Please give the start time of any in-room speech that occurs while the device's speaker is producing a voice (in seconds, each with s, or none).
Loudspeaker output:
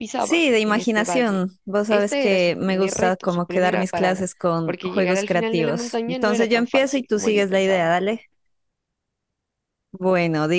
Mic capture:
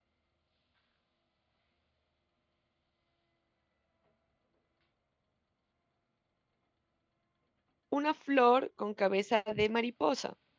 7.9 s